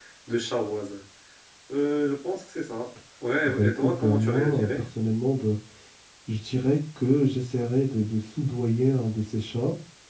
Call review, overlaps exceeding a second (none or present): present